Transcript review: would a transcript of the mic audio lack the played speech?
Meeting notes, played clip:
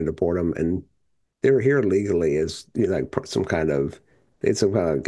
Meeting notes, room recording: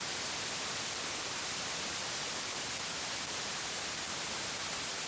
Yes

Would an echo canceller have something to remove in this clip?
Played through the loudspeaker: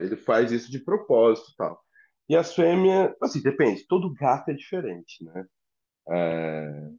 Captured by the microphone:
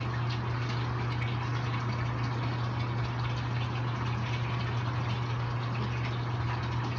No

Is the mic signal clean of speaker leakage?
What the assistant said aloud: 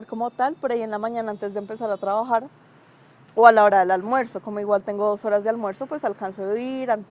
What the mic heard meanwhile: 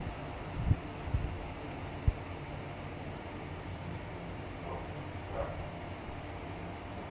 Yes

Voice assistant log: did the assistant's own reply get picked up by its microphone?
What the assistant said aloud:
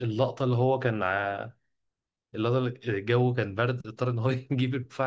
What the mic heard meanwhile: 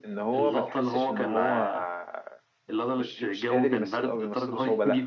Yes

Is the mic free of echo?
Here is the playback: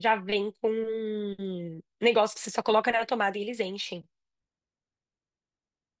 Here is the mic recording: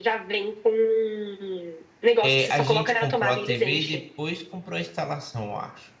No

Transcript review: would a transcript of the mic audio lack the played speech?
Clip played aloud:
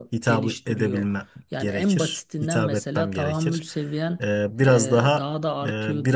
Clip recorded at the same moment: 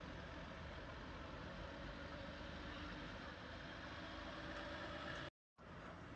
Yes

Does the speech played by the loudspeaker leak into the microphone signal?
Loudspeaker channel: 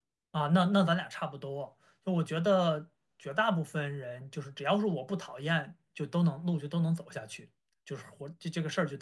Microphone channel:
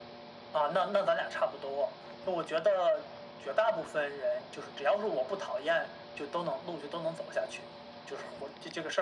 Yes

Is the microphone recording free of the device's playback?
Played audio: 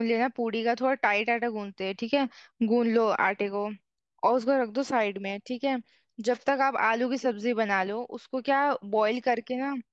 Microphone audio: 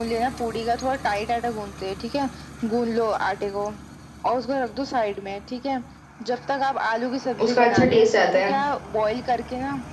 No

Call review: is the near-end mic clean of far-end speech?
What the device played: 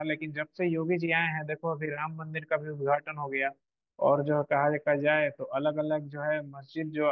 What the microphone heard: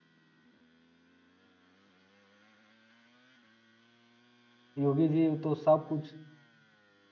Yes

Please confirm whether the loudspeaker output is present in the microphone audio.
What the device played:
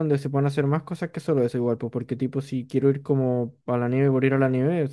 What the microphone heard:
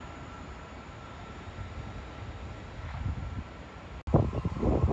No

